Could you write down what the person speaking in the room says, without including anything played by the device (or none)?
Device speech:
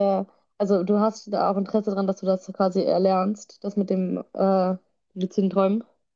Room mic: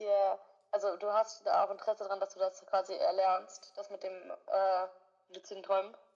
none